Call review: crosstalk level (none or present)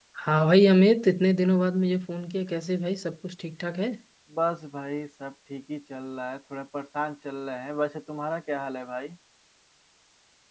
none